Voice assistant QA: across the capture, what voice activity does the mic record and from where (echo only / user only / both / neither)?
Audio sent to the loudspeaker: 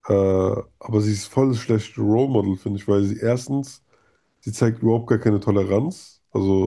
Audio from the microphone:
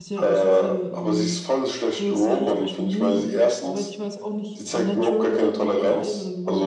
both